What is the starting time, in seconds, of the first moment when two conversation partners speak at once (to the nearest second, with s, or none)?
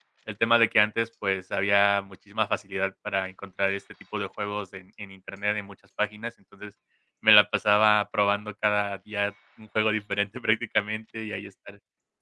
none